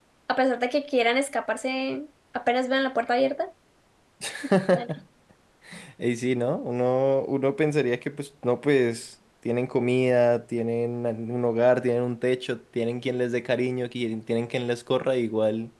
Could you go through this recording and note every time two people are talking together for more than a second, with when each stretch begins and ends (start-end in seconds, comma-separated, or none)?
none